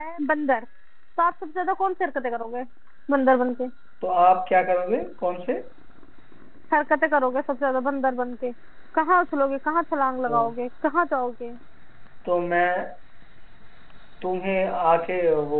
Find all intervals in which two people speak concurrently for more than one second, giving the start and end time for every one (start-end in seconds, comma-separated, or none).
none